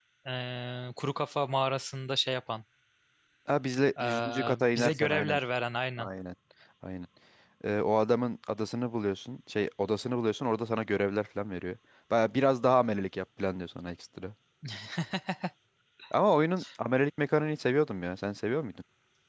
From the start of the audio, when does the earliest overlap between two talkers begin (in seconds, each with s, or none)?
4.0 s